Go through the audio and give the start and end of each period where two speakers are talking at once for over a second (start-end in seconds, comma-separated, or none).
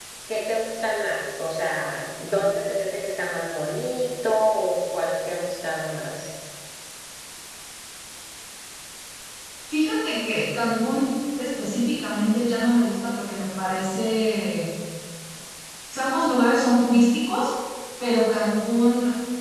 none